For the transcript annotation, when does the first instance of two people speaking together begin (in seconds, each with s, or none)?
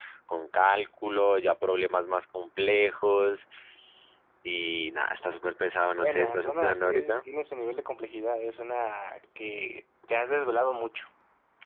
6.0 s